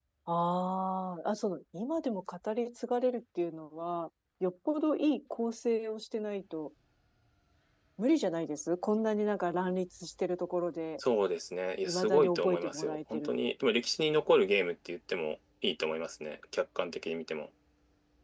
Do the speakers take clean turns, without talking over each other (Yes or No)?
No